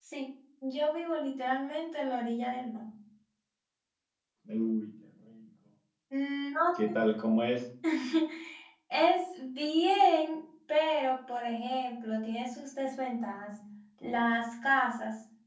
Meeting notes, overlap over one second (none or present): none